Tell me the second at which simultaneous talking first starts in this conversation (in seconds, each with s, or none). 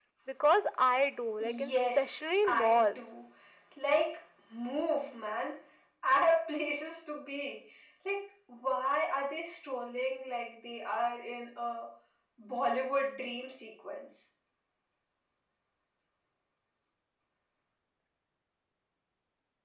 1.4 s